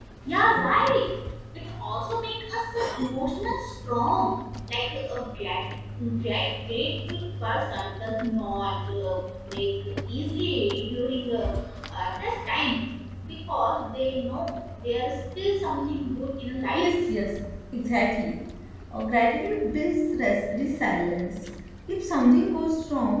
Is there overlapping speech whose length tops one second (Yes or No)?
No